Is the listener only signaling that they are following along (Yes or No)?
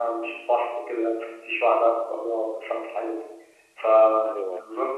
Yes